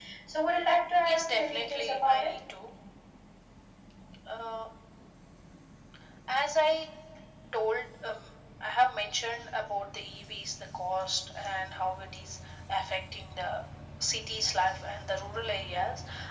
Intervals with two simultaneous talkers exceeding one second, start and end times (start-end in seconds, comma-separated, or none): 1.0-2.4